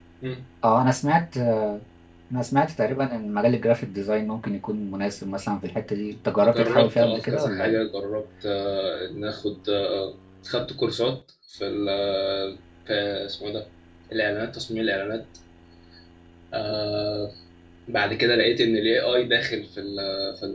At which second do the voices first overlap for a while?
6 s

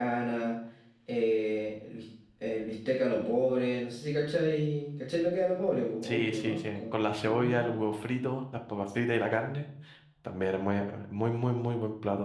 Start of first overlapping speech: 6 s

